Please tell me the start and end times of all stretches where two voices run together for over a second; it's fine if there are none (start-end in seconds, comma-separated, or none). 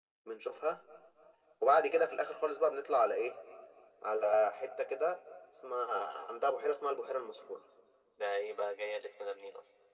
none